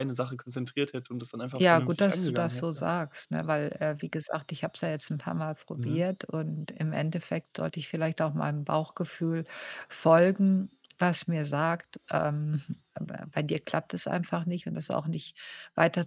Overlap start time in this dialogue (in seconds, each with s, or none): 1.6 s